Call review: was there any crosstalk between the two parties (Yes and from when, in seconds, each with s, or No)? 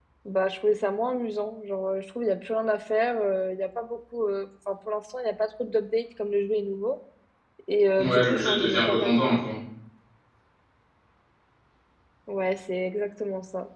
Yes, from 8.0 s